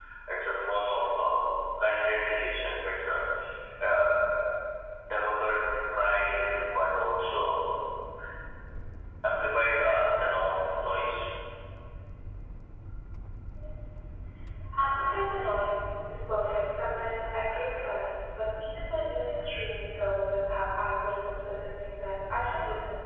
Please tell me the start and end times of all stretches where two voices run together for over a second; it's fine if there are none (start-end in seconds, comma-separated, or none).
none